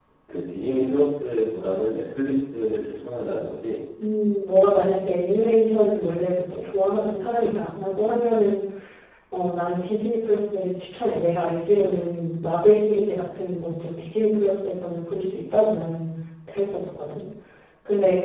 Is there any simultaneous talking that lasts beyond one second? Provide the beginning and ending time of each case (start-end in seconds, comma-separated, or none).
none